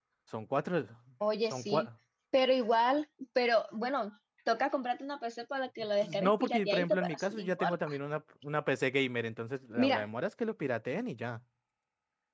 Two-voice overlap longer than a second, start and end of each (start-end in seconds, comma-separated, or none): 6.2-7.9